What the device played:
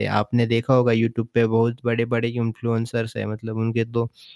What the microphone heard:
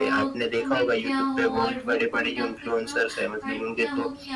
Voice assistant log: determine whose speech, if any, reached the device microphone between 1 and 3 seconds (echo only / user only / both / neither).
both